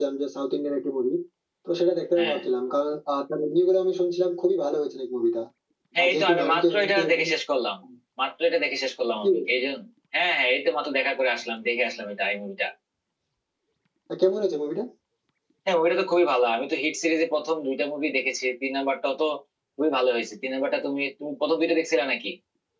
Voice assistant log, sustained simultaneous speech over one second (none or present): present